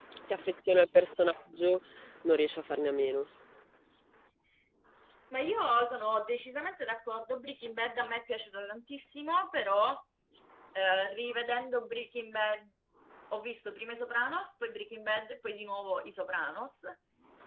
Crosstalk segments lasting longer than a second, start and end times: none

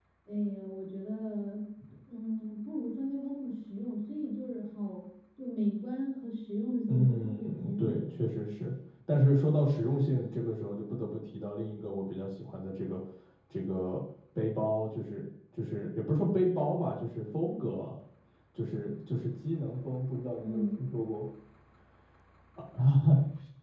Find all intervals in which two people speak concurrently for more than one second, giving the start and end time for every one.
6.9-8.2

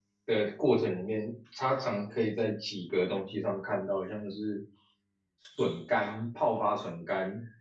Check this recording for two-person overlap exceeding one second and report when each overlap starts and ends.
none

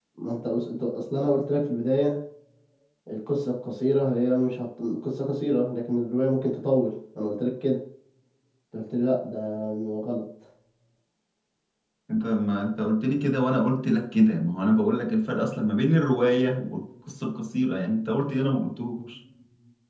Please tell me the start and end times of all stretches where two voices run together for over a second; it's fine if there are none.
none

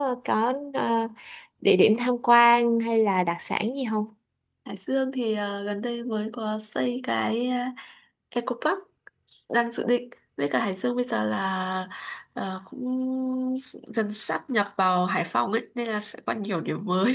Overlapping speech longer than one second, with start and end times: none

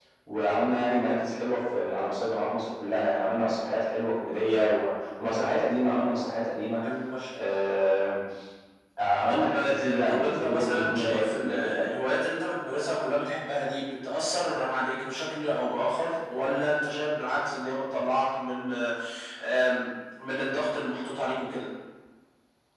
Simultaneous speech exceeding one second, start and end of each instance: 9.3-11.9

